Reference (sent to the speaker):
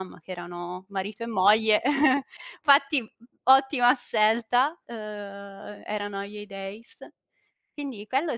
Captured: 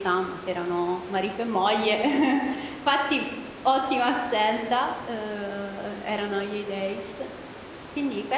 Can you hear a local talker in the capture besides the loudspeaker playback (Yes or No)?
No